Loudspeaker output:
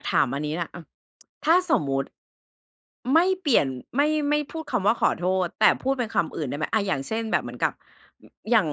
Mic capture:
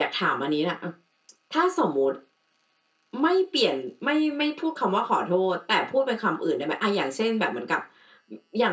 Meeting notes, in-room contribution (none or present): none